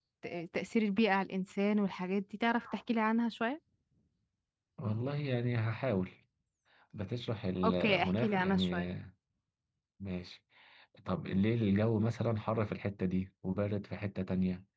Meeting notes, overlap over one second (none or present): present